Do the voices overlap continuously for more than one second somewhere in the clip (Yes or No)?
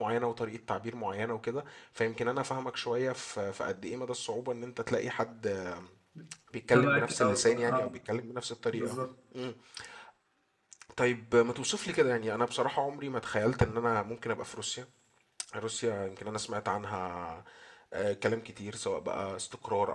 Yes